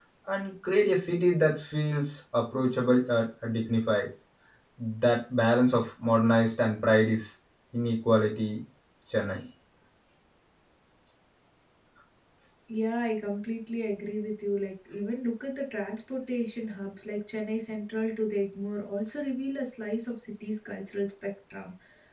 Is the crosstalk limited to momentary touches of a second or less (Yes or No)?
Yes